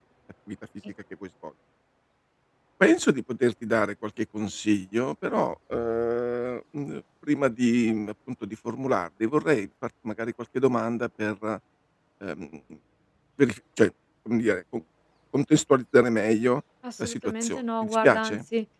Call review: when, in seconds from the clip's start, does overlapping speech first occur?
16.8 s

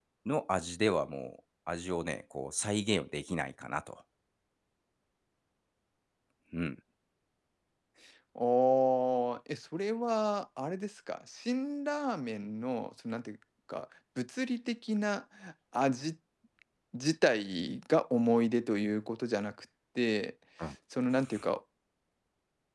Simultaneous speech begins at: none

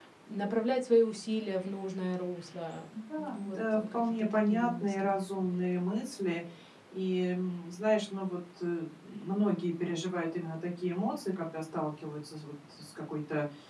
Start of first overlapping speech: 3.2 s

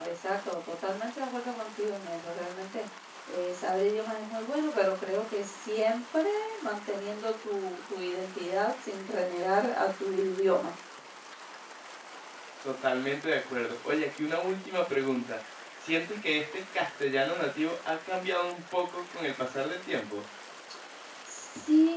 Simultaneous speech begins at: none

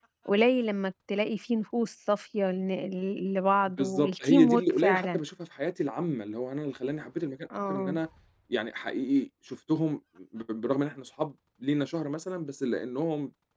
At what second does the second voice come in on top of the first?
3.8 s

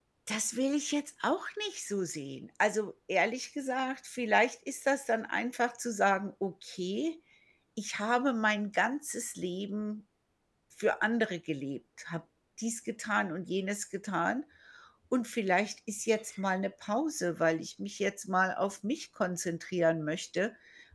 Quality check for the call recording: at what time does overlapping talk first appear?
none

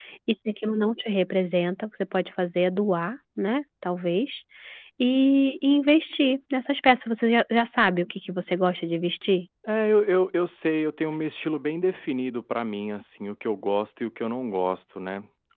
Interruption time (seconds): none

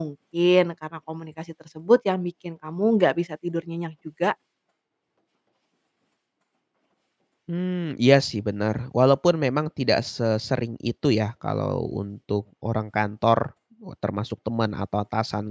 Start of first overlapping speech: none

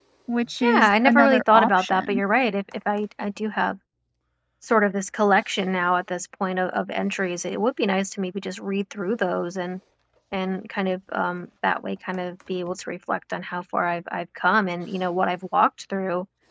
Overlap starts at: 0.6 s

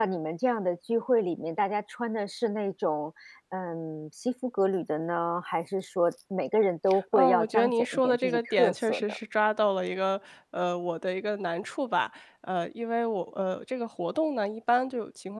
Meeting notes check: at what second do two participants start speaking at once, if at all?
7.1 s

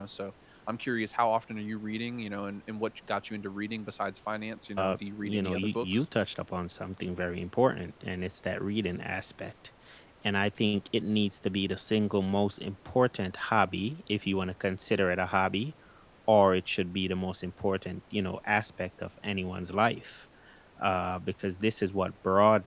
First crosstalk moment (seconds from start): 4.8 s

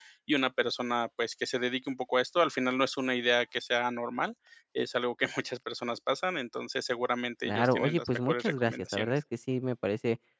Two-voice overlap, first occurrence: 7.4 s

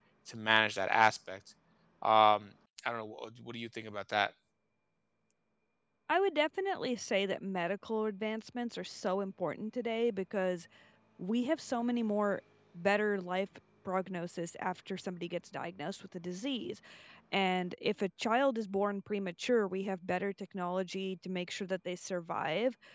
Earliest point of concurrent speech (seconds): none

